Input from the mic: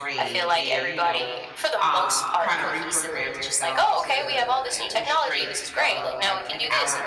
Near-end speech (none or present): present